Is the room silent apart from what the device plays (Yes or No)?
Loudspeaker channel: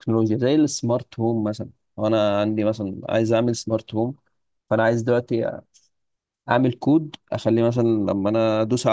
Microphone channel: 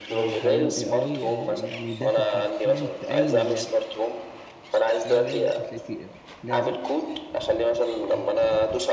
No